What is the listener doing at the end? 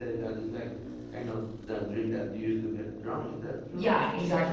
taking over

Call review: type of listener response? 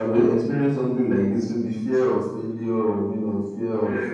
taking over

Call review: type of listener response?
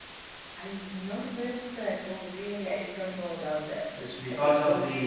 taking over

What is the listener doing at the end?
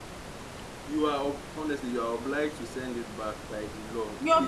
taking over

